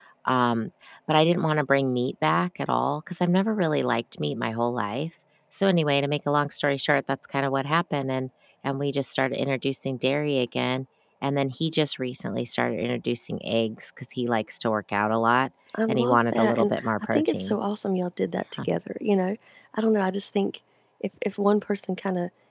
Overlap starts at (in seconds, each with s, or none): 15.9 s